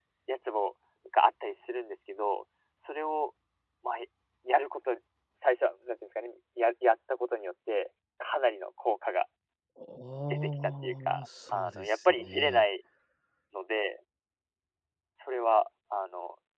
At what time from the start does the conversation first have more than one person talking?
10.3 s

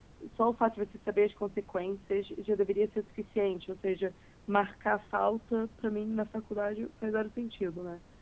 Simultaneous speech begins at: none

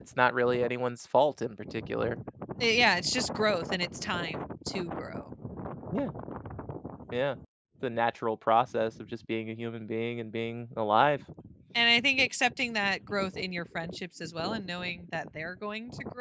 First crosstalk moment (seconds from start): none

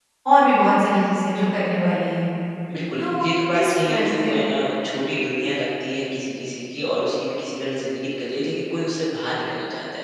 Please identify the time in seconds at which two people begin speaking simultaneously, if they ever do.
3.0 s

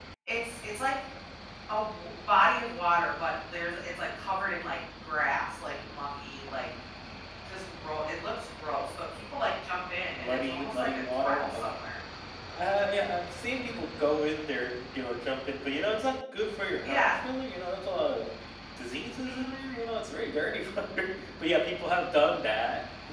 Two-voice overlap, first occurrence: 10.2 s

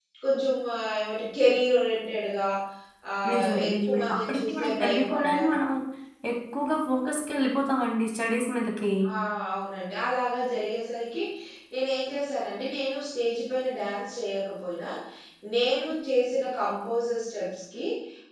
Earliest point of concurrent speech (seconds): 3.3 s

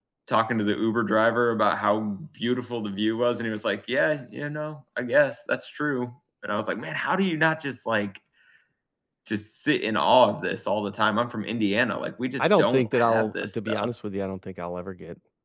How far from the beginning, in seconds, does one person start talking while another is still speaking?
12.4 s

